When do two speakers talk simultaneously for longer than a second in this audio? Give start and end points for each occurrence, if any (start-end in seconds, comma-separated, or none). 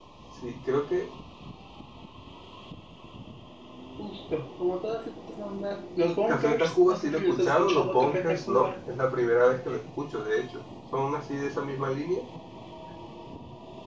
6.2-8.7